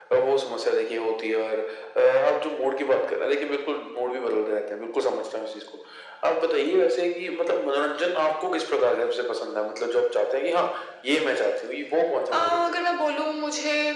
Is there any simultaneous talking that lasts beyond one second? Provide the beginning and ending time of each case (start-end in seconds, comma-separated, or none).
none